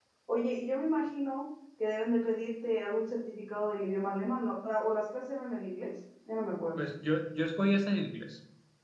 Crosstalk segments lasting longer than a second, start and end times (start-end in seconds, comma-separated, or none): none